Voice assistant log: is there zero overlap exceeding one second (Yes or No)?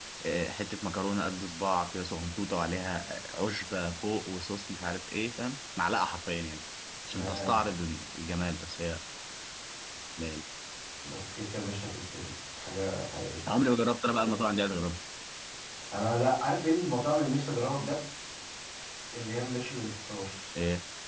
Yes